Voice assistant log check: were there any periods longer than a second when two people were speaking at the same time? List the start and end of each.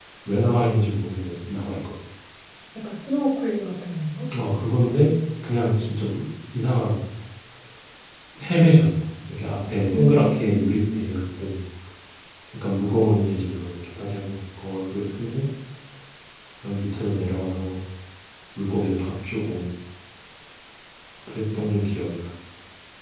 9.9-11.2

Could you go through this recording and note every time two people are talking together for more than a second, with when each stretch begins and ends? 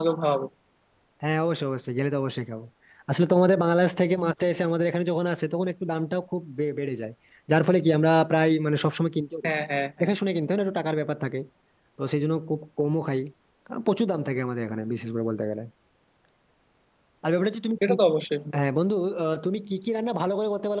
none

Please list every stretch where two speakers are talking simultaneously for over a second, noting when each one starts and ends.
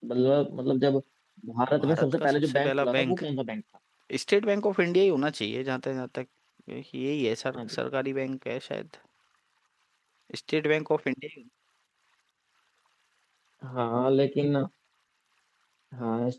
1.8-3.2

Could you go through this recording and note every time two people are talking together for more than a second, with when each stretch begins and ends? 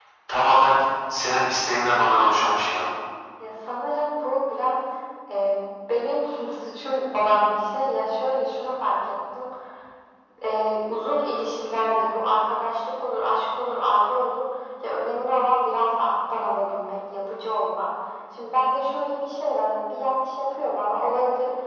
none

